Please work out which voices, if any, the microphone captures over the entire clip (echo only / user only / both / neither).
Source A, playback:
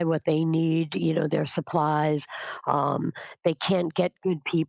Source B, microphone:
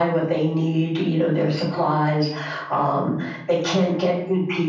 echo only